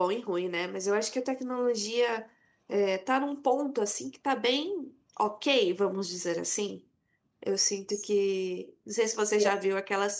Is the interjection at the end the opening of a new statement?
No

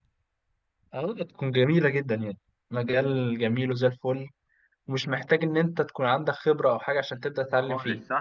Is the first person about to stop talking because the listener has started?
Yes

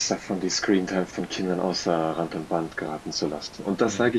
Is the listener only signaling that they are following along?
Yes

